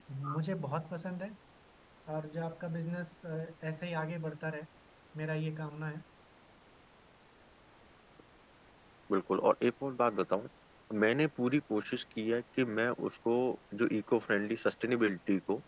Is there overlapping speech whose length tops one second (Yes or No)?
No